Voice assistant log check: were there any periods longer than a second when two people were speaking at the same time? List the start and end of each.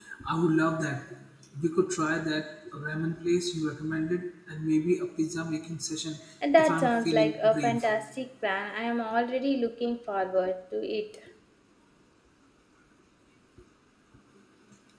6.6-7.9

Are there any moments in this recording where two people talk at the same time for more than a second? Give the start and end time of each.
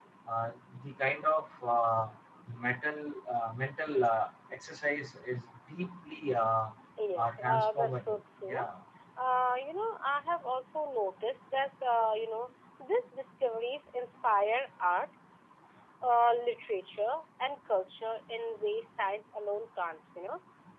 7.2-8.6

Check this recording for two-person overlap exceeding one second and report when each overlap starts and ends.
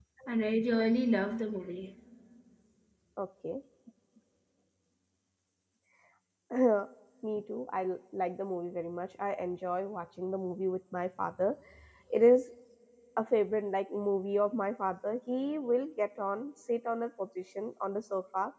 none

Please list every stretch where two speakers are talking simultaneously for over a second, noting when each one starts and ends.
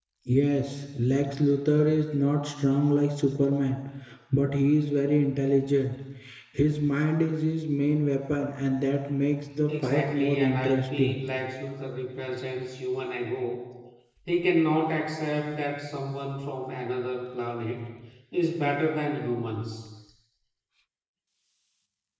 9.7-11.2

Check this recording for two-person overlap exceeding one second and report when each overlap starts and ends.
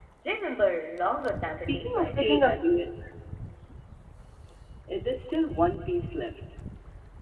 1.6-2.9

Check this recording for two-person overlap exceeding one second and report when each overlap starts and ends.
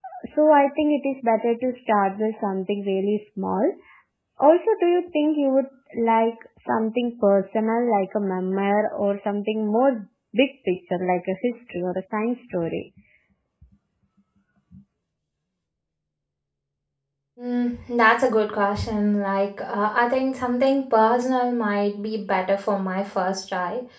none

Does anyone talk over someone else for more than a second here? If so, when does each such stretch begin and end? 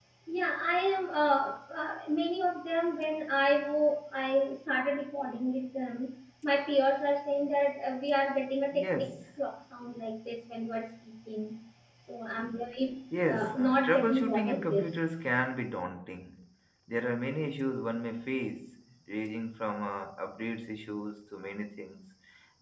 13.2-14.8

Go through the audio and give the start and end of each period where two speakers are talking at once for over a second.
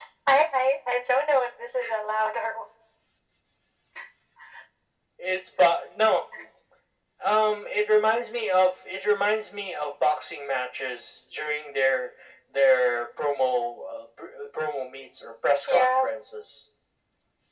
none

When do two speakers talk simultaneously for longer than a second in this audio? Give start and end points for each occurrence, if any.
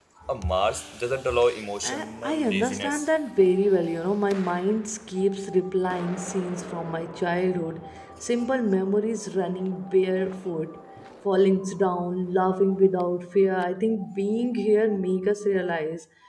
1.8-3.1

